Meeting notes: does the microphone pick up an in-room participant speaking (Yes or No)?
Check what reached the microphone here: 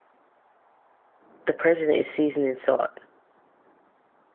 Yes